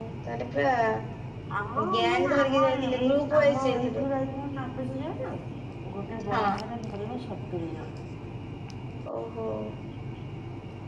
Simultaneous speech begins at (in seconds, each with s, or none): 1.9 s